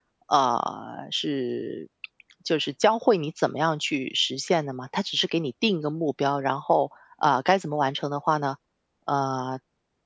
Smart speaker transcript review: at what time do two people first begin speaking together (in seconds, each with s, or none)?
none